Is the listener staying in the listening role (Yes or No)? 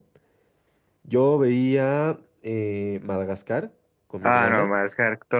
No